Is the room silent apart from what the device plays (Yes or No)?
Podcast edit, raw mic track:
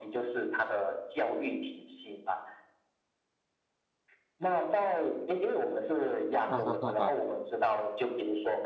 No